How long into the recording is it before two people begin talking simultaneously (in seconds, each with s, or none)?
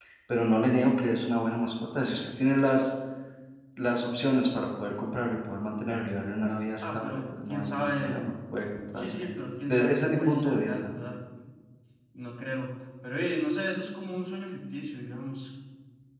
6.8 s